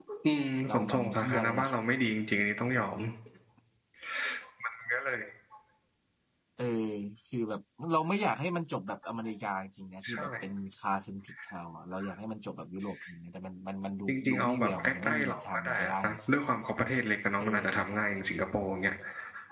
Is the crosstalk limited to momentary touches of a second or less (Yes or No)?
No